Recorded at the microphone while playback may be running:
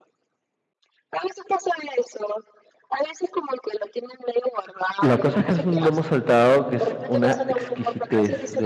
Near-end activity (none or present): present